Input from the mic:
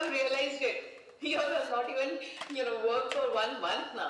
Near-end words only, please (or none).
none